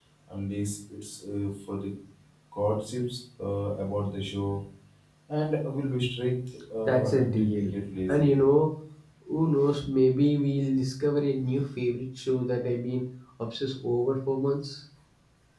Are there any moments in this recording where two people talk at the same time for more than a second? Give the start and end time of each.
6.8-8.3

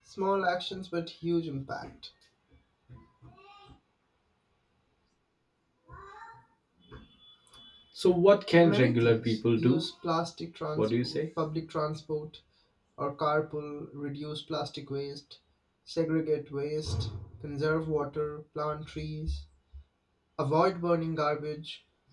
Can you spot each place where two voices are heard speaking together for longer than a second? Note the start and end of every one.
8.6-9.8

